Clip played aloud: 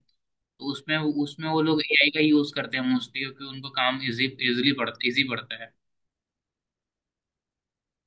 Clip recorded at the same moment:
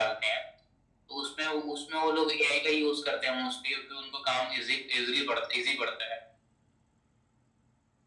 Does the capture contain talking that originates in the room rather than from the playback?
No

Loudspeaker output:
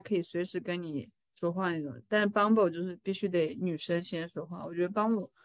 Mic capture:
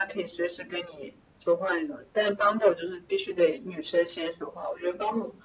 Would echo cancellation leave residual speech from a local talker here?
No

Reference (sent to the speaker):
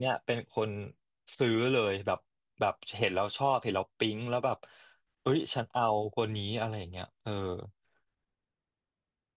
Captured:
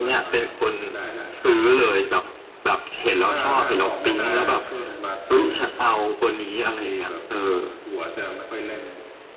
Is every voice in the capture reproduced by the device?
No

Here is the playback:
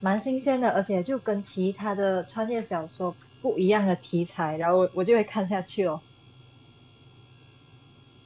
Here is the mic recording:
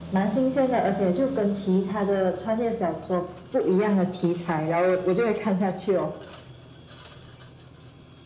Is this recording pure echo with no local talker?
Yes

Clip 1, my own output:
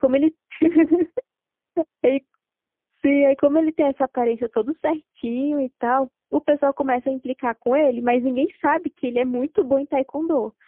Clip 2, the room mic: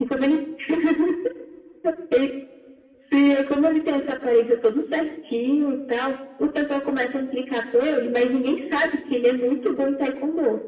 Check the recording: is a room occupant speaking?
No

